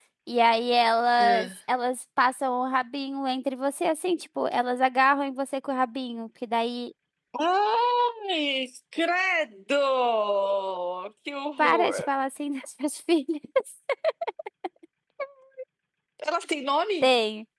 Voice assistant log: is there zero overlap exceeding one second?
Yes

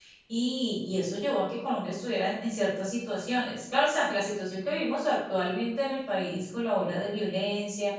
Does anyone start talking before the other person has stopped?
No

